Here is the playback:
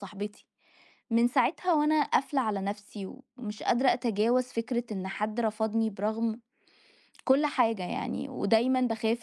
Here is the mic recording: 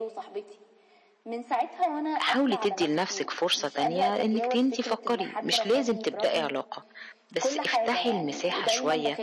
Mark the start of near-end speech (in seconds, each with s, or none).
2.2 s